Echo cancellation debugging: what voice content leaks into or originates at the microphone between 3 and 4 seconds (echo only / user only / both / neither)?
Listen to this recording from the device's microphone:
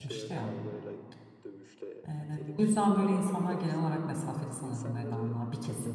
both